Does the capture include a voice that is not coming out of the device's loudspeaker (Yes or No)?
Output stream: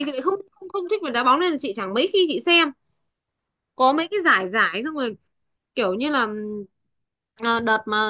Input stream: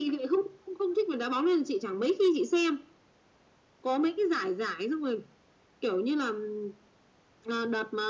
No